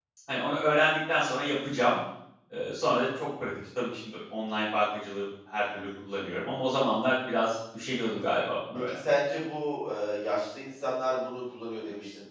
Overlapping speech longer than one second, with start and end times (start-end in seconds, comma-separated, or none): none